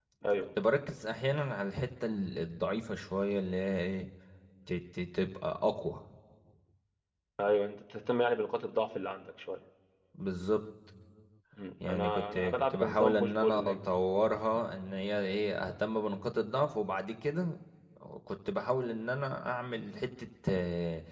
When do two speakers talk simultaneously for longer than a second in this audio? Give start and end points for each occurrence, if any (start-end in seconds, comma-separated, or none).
11.8-13.8